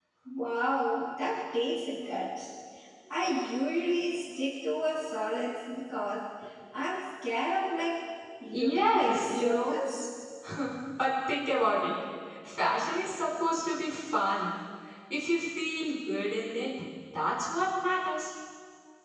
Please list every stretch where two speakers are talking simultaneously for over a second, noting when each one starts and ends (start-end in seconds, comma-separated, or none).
8.5-9.8